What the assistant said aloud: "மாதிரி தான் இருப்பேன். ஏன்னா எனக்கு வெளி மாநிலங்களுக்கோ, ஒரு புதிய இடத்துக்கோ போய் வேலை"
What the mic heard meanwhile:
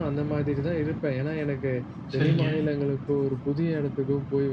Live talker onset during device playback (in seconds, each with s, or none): 2.1 s